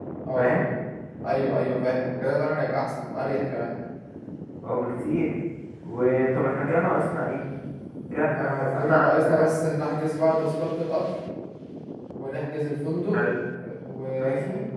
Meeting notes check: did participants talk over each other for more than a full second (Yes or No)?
Yes